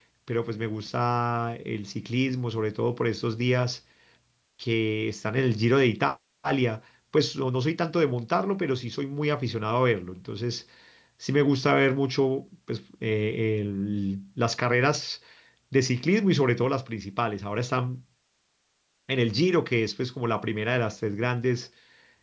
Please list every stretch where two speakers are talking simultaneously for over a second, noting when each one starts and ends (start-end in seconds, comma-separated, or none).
none